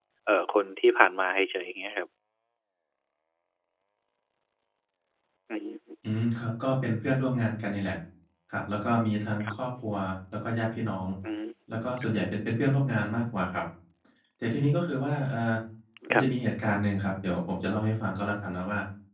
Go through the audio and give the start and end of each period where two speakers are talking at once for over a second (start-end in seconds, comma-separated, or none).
none